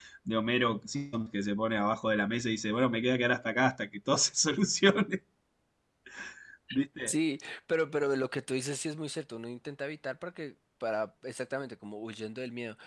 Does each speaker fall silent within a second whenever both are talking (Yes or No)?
Yes